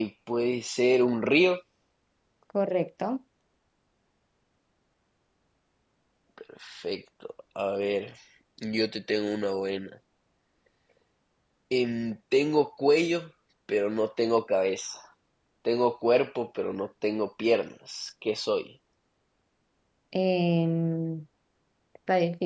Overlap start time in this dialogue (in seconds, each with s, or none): none